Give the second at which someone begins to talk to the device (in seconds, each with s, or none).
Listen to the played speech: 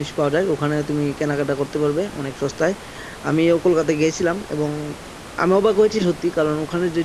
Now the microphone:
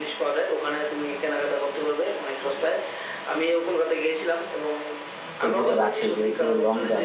5.5 s